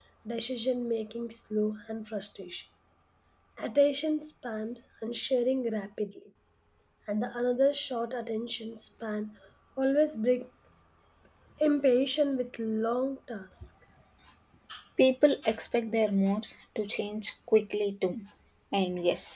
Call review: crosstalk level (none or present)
none